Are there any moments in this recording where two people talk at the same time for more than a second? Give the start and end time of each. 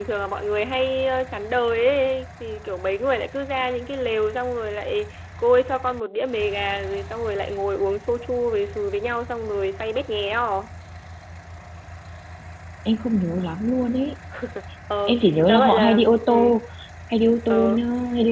15.1-16.6

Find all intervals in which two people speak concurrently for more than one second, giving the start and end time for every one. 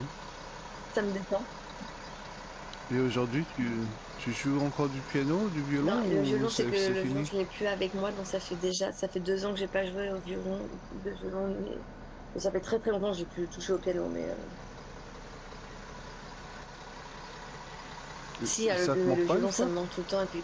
5.8-7.3, 18.4-19.7

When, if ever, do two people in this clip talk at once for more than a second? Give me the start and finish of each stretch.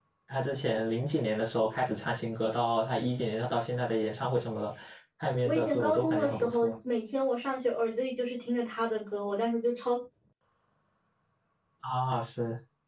5.4-6.7

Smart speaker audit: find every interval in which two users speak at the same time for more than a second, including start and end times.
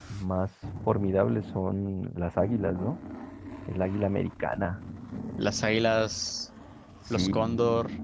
none

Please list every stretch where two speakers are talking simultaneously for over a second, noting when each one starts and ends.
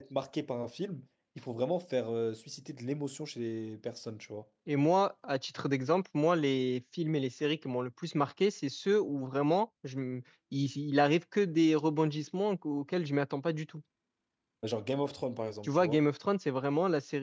none

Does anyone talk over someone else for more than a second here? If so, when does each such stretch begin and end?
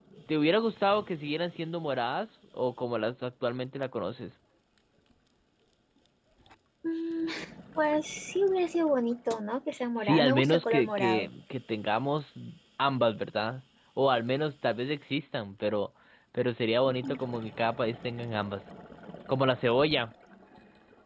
10.0-11.3

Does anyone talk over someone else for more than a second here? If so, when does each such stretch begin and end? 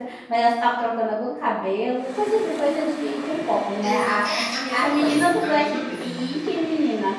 4.7-6.0

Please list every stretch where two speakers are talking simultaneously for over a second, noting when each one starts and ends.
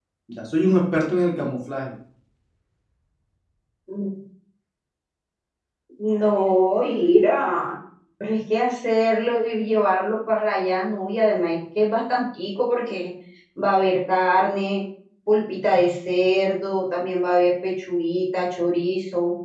none

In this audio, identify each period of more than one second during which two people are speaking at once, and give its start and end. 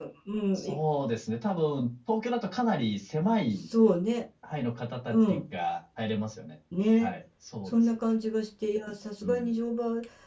none

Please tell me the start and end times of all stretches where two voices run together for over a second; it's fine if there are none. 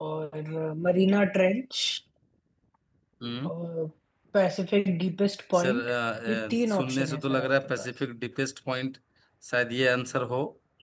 6.3-7.9

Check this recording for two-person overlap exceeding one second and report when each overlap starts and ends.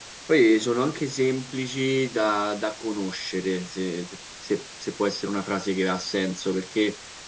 none

